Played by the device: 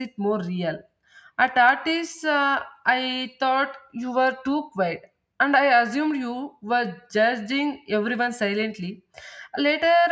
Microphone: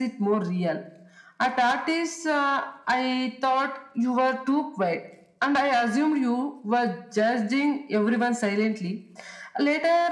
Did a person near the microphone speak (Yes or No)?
No